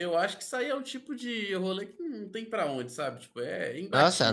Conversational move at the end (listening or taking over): taking over